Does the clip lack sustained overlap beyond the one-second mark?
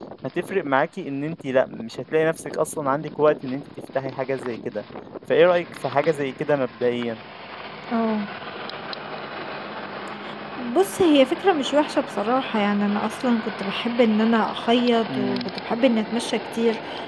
Yes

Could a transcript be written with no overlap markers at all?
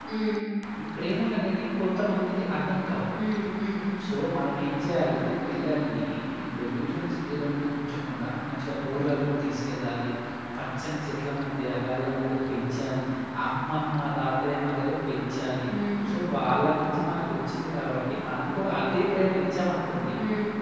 Yes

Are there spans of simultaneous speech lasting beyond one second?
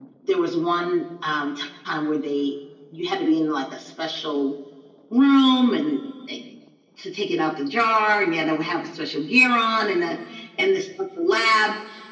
No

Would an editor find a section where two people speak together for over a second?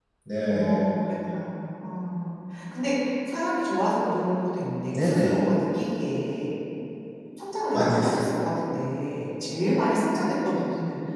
No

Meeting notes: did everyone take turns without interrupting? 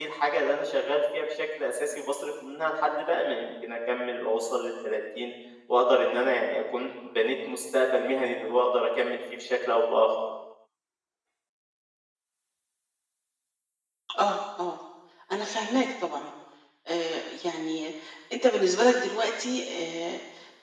Yes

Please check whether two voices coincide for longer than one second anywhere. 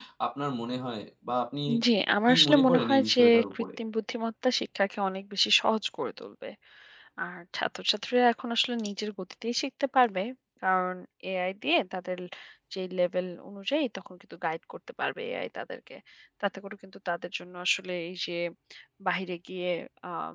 Yes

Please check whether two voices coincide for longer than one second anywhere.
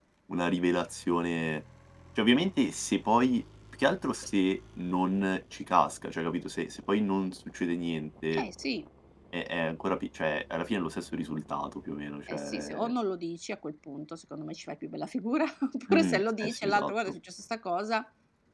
Yes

